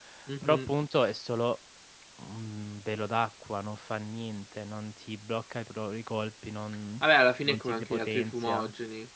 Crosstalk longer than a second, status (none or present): present